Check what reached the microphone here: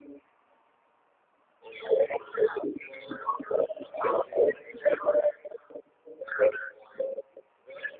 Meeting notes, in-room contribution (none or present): none